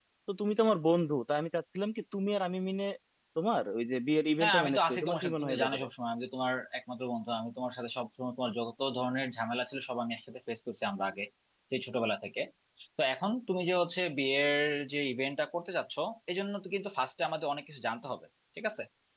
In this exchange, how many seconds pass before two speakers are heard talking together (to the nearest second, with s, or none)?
4 s